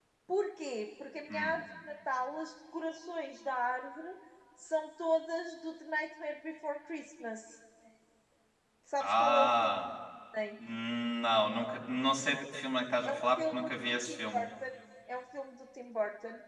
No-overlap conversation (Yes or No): No